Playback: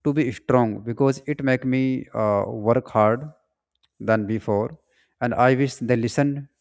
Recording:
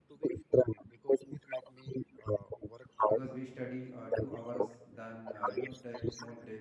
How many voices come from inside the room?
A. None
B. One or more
B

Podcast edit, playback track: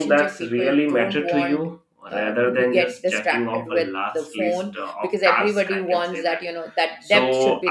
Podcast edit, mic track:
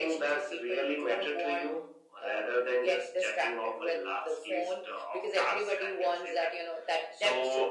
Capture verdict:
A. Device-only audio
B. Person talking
A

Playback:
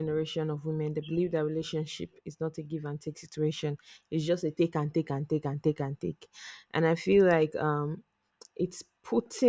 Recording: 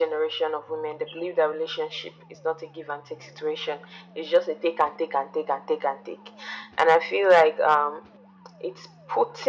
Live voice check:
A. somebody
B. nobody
B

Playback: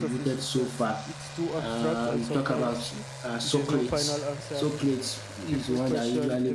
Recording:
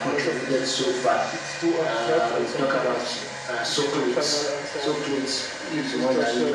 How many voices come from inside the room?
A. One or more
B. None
B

